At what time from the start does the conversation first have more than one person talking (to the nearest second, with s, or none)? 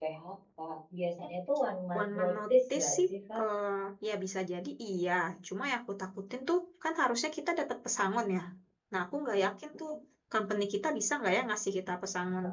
2 s